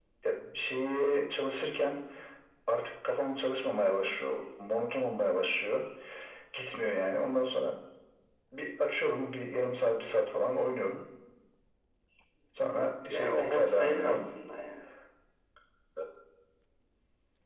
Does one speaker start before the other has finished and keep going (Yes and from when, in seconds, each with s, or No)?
Yes, from 12.8 s